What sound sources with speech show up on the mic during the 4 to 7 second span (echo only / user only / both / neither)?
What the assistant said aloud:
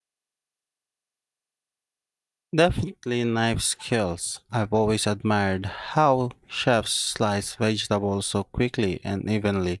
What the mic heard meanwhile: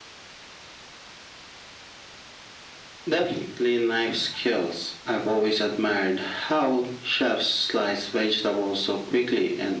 echo only